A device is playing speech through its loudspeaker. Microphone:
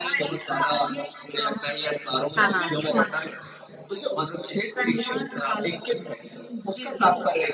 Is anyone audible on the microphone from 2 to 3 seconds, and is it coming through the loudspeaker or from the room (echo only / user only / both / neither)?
both